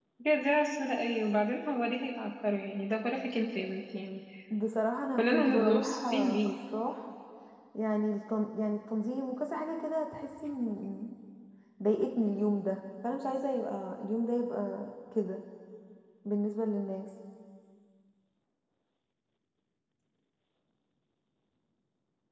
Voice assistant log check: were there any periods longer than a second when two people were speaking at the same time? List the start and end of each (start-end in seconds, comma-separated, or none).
5.2-6.4